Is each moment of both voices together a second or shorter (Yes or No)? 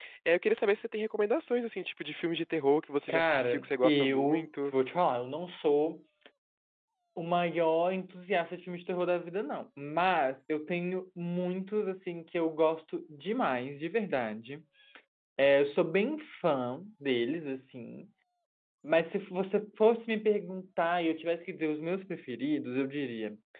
No